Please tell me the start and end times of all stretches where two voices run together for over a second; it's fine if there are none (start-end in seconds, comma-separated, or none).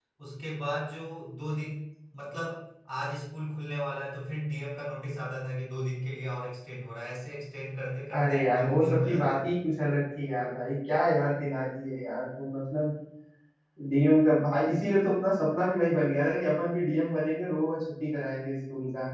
8.2-9.6